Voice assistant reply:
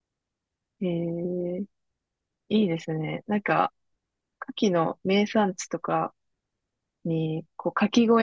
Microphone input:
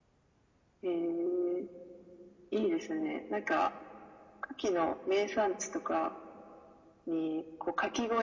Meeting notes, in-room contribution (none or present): none